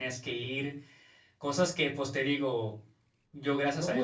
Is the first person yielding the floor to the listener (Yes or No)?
Yes